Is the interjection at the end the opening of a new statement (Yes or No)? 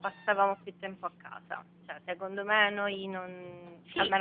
No